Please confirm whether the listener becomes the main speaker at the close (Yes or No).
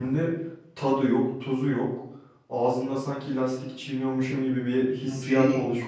Yes